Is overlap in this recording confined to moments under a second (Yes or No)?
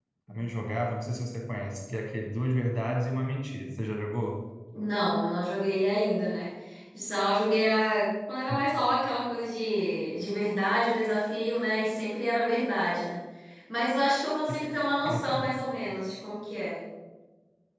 Yes